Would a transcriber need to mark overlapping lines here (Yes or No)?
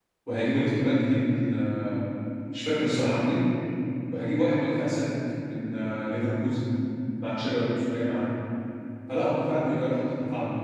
No